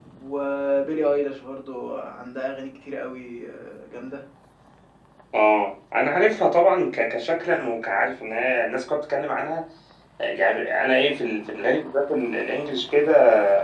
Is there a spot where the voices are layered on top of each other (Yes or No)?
No